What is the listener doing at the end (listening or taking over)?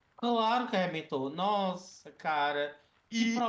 taking over